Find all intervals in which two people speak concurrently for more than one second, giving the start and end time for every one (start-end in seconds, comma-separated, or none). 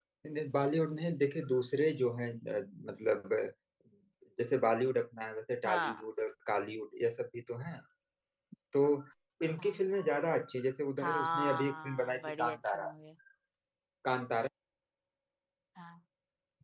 11.0-12.9